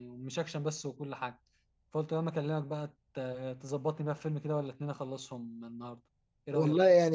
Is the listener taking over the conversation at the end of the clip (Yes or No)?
Yes